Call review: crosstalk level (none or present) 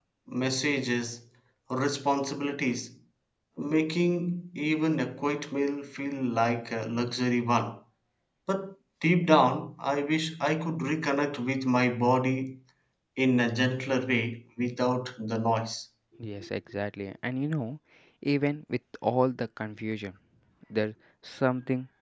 none